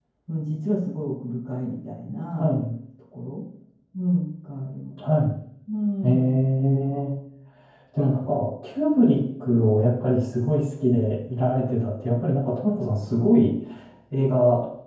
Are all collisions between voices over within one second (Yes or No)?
Yes